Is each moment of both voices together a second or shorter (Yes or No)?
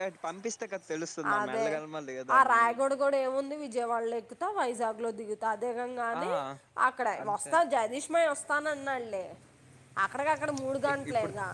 Yes